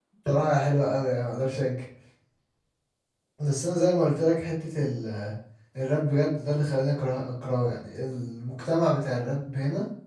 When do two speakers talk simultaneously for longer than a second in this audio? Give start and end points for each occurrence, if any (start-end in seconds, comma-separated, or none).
none